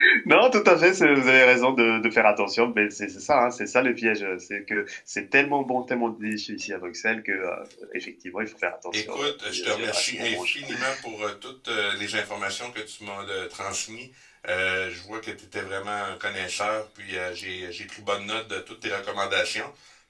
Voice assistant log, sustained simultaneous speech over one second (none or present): present